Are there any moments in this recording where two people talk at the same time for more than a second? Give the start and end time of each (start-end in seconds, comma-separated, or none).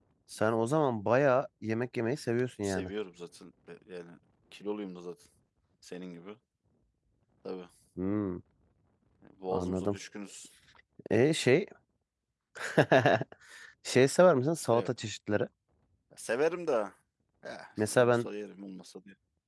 none